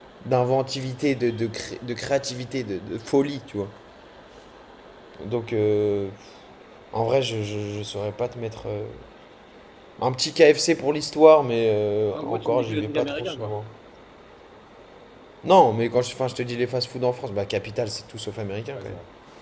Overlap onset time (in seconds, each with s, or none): 12.2 s